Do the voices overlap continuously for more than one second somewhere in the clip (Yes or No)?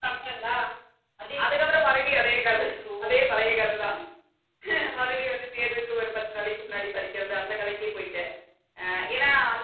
No